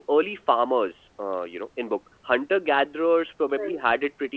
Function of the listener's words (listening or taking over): listening